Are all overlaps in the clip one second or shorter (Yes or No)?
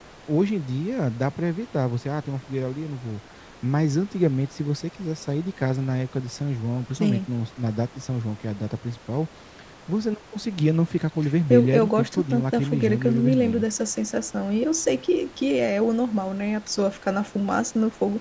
No